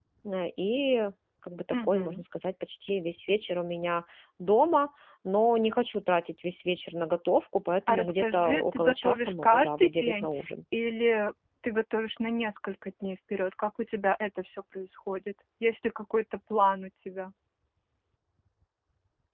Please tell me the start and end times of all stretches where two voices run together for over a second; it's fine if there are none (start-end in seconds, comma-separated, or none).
7.9-10.3